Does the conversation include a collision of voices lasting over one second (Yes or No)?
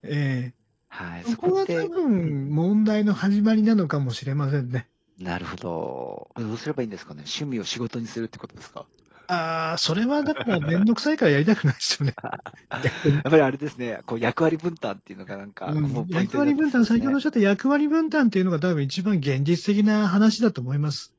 Yes